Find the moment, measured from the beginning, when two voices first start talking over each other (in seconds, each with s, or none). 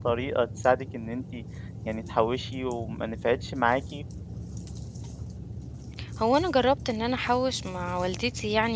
none